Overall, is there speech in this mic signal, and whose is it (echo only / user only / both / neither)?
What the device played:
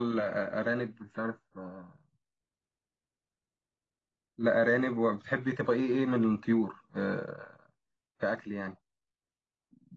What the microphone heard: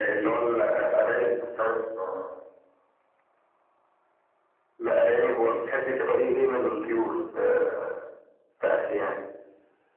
both